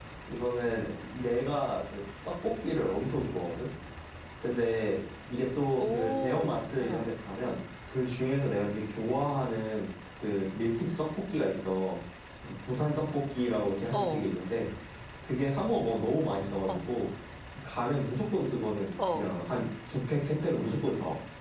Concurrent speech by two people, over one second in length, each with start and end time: 5.8-7.1

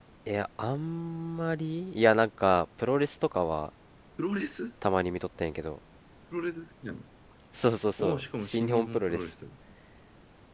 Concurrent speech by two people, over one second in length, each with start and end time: 8.0-9.3

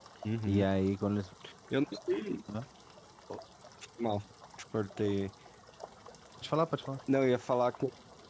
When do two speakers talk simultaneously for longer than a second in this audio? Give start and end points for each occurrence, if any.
none

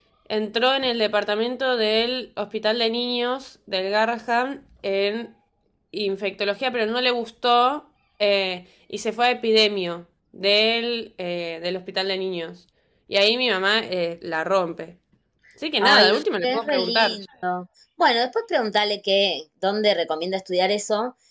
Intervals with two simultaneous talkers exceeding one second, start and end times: 15.8-17.2

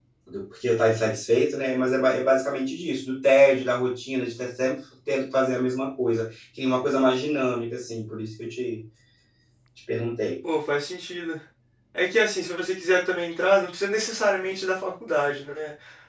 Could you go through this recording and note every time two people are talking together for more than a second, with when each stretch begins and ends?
none

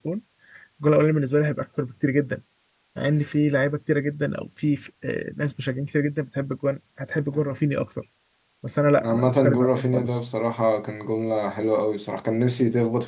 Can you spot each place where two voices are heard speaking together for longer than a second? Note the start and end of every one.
9.0-10.2

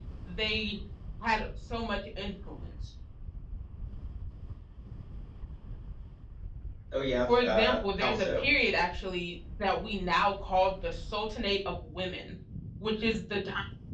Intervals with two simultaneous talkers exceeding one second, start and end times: 7.3-8.5

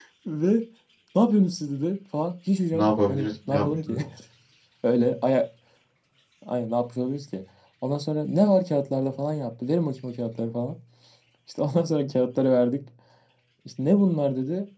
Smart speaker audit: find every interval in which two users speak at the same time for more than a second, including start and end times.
2.7-4.0

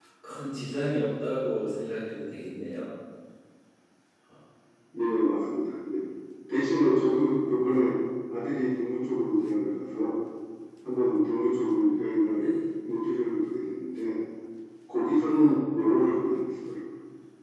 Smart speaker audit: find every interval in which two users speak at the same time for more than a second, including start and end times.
none

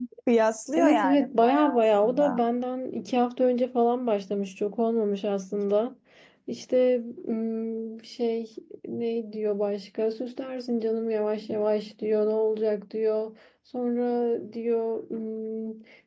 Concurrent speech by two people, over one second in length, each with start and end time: 0.7-2.2

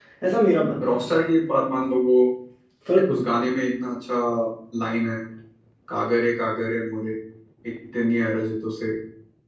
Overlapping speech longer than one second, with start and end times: none

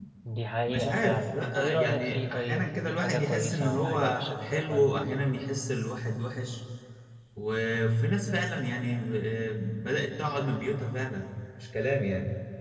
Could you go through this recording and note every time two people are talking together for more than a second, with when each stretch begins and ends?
0.7-5.0

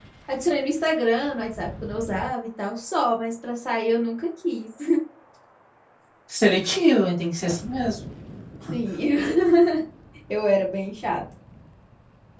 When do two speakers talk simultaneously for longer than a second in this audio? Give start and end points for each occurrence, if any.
none

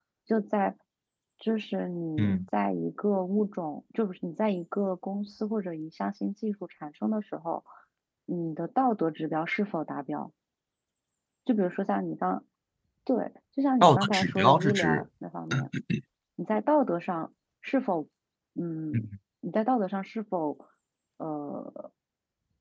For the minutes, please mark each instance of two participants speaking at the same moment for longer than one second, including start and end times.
13.8-15.0

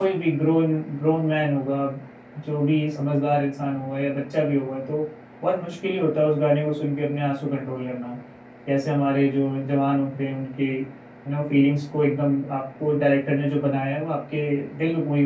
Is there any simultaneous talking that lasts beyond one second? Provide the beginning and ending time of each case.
none

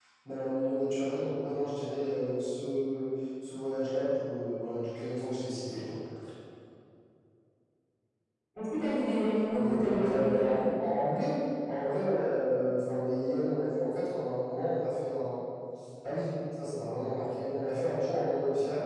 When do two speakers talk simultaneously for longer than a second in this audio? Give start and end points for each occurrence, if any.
9.5-10.7

